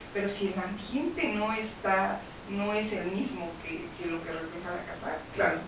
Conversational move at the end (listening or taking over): listening